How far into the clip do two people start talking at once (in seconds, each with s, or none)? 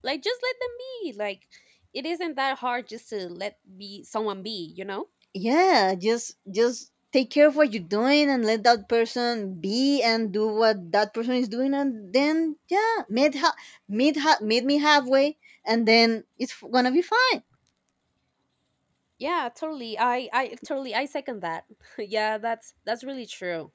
none